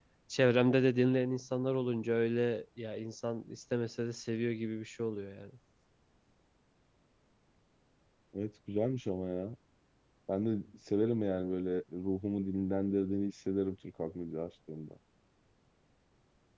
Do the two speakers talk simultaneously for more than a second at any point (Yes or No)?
No